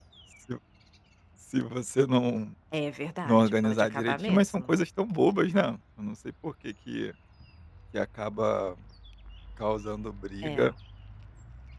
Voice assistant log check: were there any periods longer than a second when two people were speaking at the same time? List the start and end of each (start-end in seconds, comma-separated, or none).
3.2-4.6